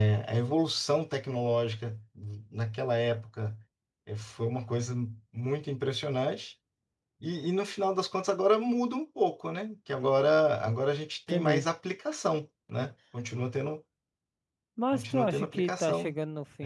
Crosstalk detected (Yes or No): Yes